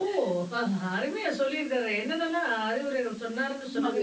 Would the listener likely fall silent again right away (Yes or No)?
No